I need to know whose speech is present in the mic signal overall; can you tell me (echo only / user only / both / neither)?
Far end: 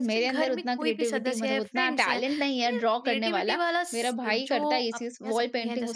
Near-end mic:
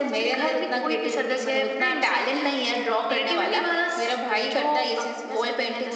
echo only